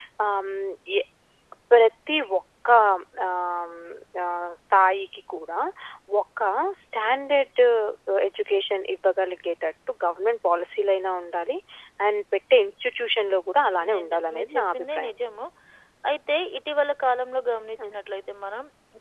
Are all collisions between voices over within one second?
No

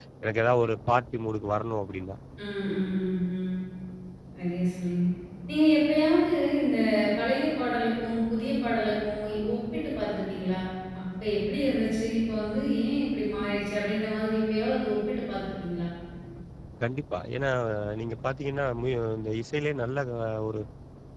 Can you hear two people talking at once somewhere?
No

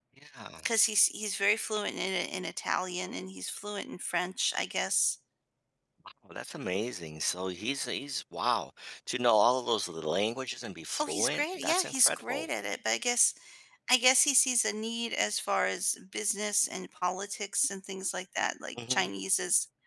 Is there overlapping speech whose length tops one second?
Yes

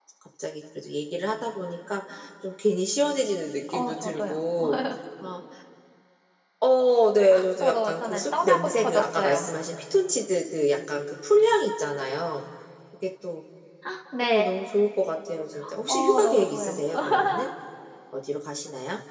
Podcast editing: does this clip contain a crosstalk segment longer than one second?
Yes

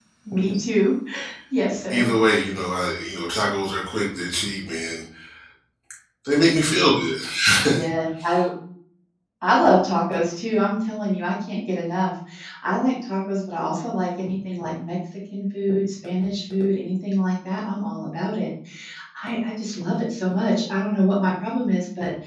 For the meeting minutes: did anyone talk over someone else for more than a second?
No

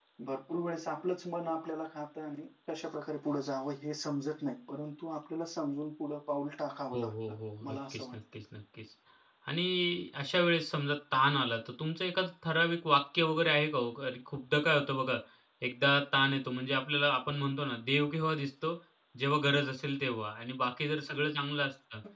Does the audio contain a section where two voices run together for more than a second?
Yes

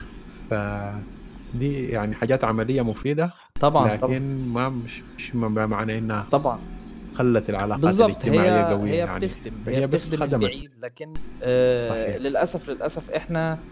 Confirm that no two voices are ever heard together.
No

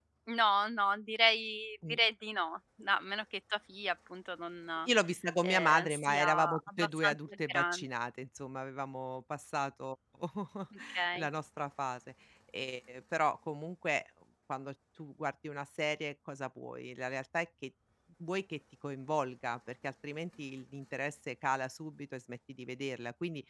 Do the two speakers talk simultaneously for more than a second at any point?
Yes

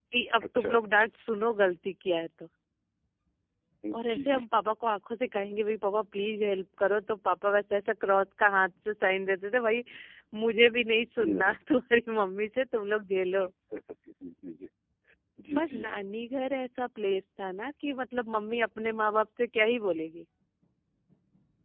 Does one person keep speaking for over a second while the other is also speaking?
No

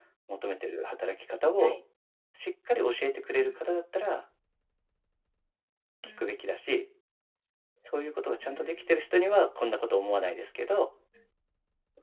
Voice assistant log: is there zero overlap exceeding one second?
Yes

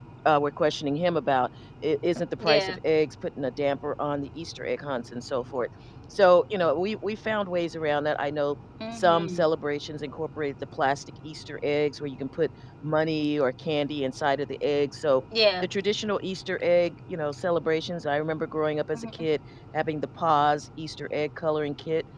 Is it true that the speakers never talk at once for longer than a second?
Yes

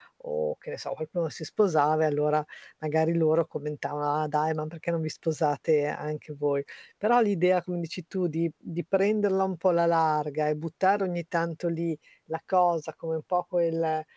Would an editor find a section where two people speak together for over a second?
No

